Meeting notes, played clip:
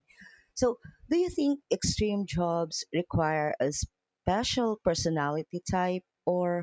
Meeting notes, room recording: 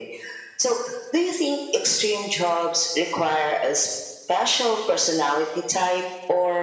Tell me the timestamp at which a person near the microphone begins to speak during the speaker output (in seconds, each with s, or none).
none